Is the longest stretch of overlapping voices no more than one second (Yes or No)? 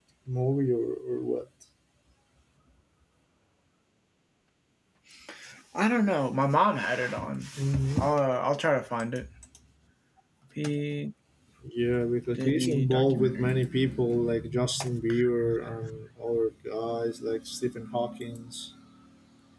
No